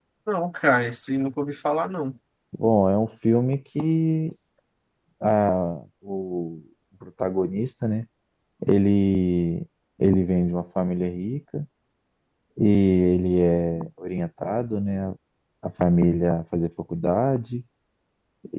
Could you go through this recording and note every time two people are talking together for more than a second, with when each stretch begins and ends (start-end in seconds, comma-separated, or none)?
none